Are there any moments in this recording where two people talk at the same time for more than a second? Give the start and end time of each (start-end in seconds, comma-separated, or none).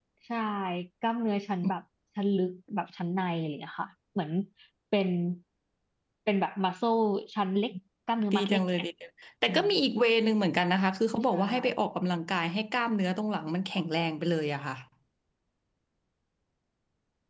none